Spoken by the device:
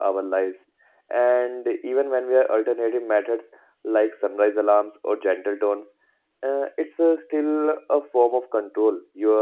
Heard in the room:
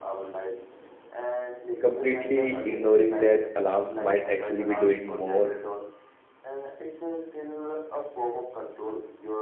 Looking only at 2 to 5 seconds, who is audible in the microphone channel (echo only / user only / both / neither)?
both